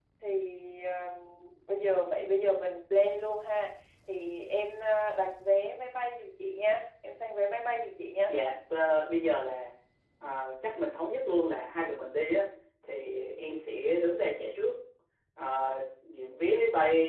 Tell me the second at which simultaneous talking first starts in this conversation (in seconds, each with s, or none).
none